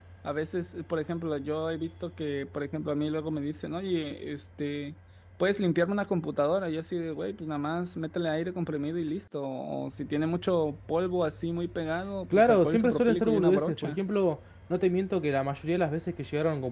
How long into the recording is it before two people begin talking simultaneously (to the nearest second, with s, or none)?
12 s